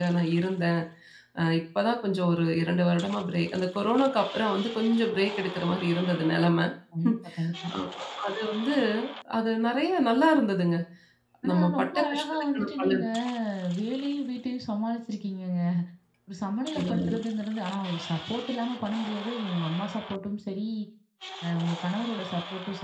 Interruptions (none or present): present